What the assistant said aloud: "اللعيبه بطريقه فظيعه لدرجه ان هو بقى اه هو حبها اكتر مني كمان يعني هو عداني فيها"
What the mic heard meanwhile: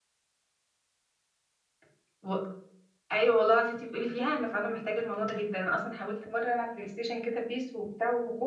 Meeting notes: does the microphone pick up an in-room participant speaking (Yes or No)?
Yes